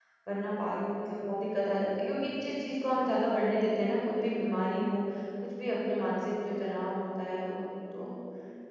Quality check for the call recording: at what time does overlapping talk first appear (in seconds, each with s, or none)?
none